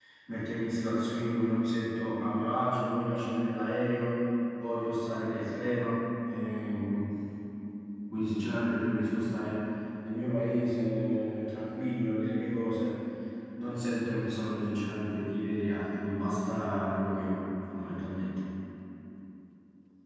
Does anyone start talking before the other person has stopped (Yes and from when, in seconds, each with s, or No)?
No